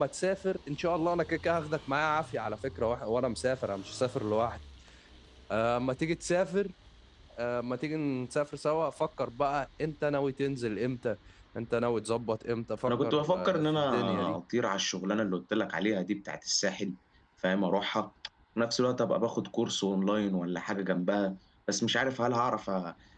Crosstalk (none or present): present